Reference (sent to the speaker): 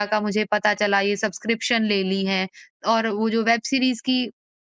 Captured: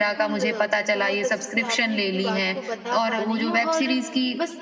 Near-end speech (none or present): present